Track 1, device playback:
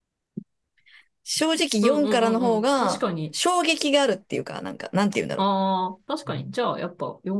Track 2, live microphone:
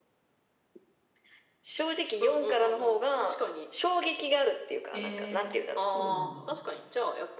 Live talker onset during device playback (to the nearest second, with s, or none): 5 s